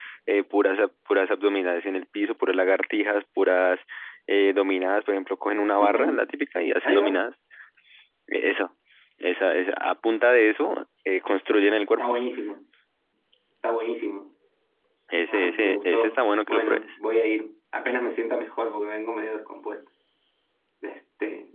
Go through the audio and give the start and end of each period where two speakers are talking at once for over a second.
15.3-16.9

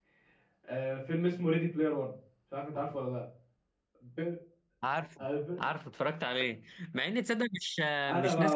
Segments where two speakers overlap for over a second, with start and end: none

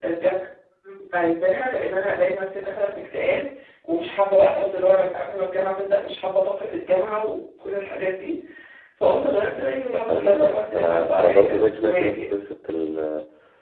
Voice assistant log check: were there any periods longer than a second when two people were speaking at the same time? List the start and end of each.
9.9-12.3

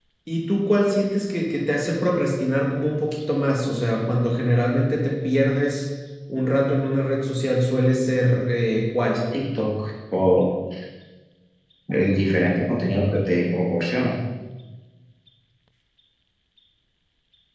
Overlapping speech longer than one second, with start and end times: none

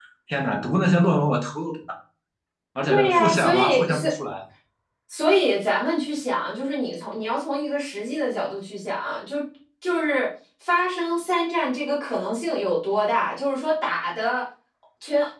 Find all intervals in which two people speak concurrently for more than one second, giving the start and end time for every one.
2.9-4.1

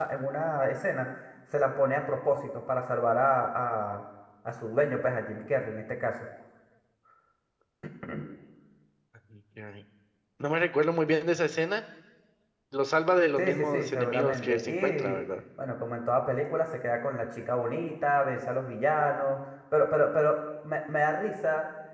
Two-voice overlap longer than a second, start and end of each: 13.4-15.2

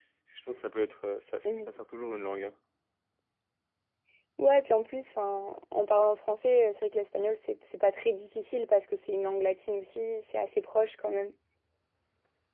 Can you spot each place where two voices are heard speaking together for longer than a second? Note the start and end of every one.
none

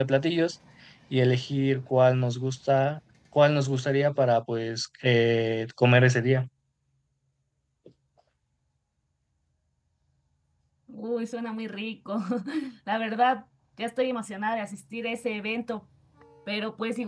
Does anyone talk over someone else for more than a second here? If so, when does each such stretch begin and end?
none

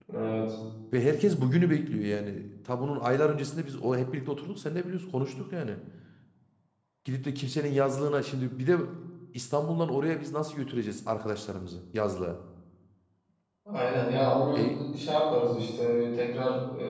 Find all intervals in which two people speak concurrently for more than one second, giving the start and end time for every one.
none

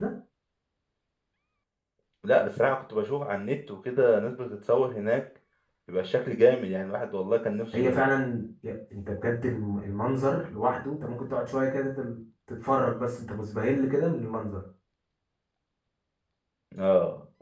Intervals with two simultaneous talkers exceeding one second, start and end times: none

